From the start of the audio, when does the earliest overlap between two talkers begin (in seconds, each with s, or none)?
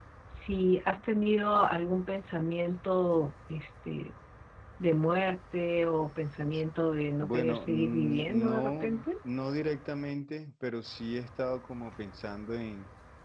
7.2 s